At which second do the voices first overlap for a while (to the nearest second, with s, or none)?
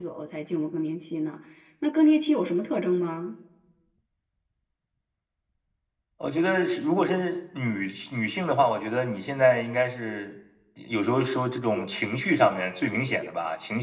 none